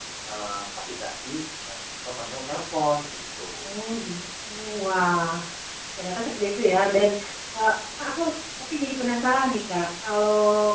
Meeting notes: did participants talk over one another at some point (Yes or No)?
No